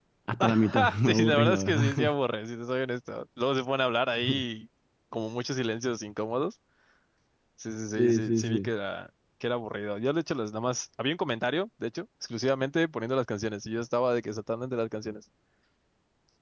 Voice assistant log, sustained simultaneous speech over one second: present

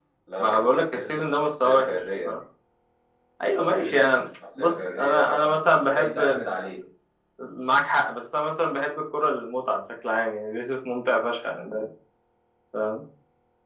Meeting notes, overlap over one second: present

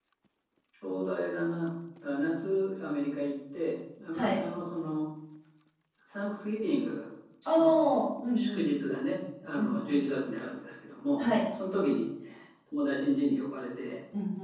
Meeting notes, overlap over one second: none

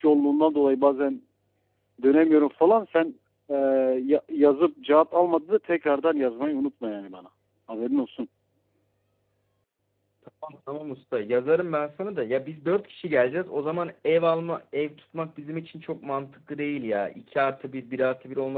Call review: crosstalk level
none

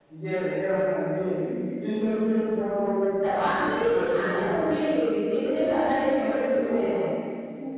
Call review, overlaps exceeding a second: present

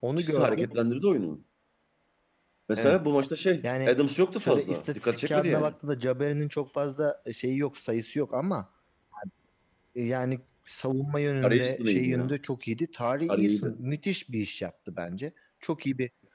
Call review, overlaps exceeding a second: present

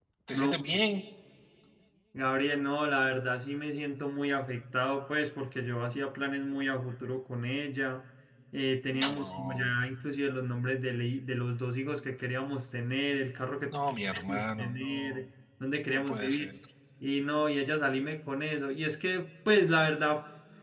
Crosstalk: present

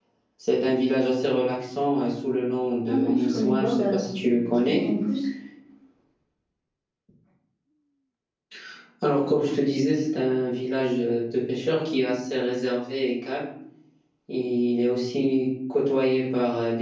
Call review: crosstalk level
present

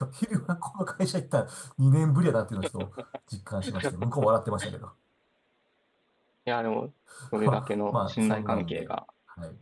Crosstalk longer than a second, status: present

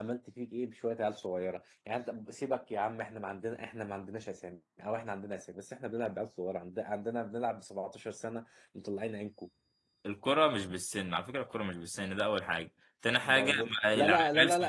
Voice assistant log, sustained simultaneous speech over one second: present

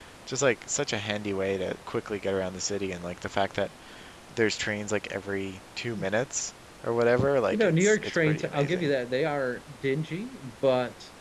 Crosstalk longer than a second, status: present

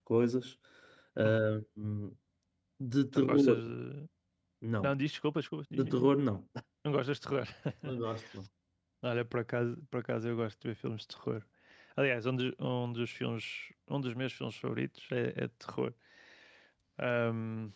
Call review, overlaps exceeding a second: none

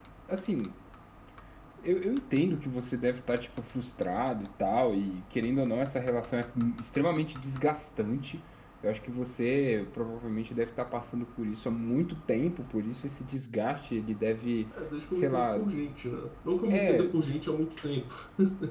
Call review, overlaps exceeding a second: none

